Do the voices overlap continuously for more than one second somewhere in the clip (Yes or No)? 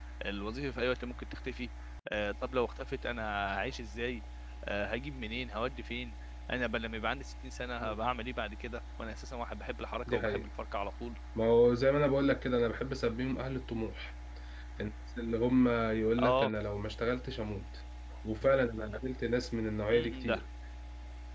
No